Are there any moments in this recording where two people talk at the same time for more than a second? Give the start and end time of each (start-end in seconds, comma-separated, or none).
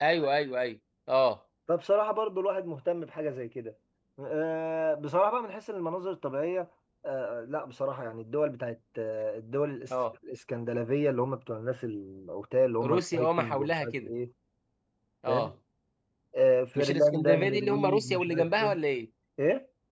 12.8-14.1, 16.8-18.8